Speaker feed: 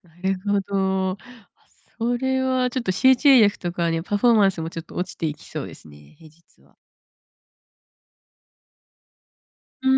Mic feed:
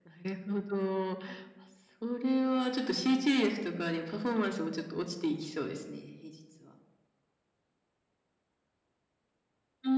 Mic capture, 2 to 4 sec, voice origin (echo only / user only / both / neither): echo only